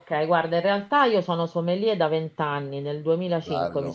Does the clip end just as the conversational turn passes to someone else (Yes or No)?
No